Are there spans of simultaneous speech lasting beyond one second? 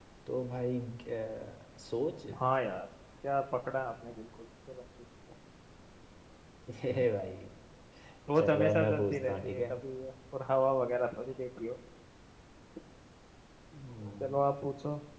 Yes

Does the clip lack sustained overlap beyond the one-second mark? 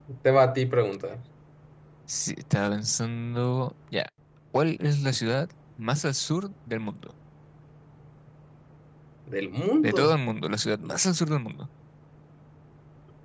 Yes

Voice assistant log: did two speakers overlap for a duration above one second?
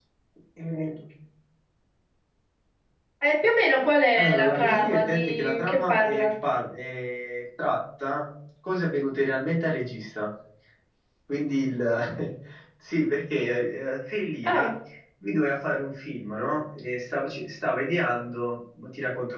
Yes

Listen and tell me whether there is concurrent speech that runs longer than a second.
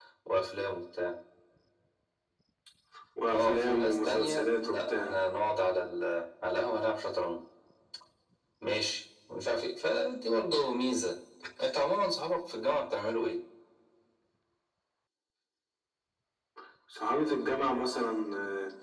Yes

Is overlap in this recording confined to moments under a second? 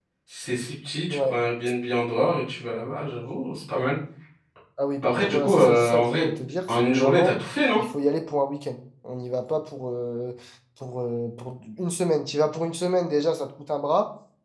No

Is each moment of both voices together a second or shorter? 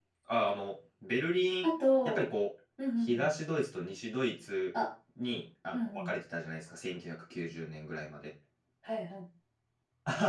Yes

